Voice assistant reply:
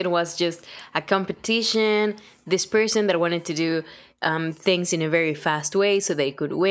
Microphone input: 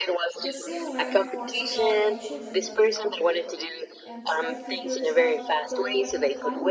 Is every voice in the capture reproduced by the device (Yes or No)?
No